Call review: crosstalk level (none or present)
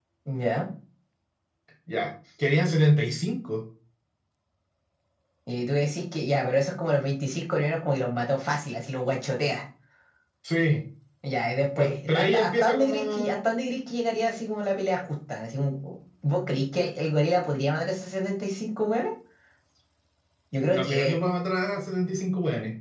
present